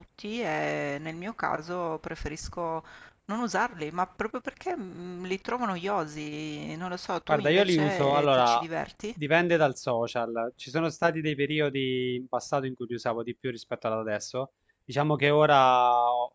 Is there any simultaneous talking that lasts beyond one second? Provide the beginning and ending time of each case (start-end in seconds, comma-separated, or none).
7.3-8.6